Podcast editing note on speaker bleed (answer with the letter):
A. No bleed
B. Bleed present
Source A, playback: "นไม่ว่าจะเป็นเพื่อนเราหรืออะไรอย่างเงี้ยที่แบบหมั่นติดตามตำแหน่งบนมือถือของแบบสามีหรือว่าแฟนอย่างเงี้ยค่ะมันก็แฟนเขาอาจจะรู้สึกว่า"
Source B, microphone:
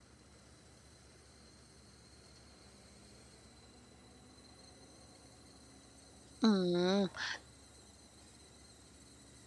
A